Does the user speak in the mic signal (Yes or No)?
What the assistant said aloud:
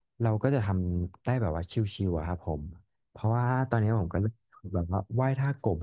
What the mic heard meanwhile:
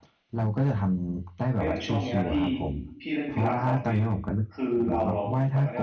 Yes